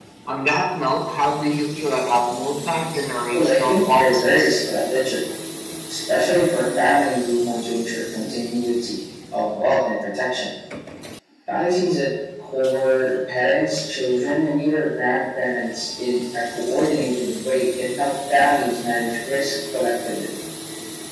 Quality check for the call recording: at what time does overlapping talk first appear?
3.3 s

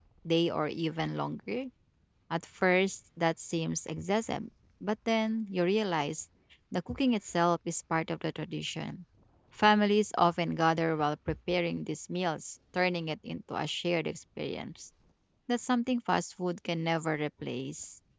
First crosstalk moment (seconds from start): none

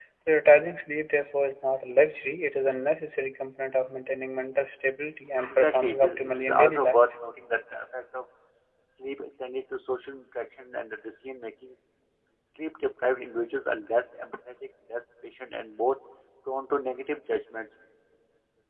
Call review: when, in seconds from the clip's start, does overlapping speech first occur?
5.5 s

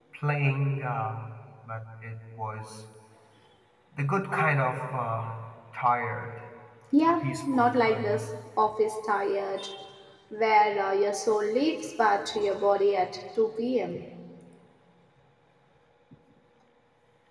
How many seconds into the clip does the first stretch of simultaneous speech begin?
7.1 s

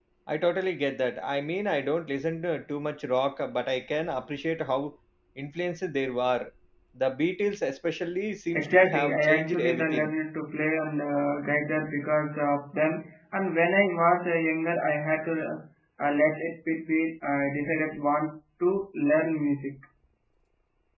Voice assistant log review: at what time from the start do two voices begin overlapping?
8.5 s

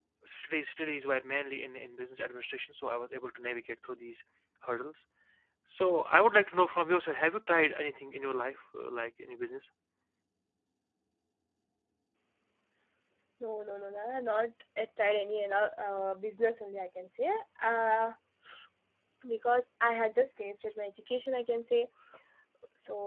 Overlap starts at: none

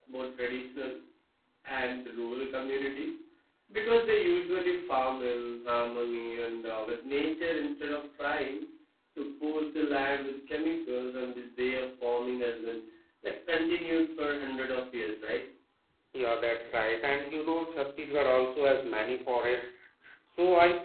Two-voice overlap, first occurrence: none

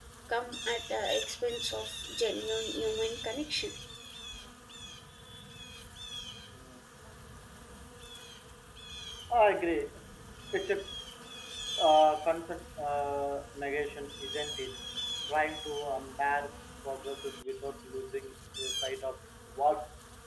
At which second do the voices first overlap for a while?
none

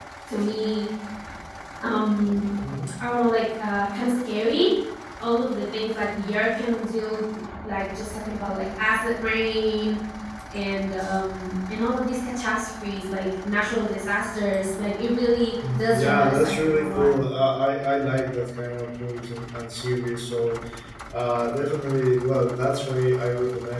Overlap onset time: 15.6 s

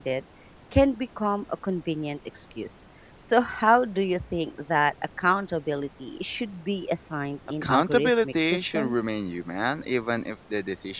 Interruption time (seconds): 7.6 s

